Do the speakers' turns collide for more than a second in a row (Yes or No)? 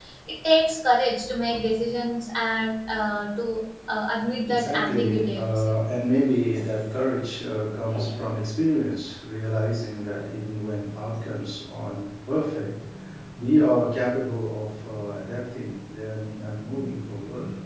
Yes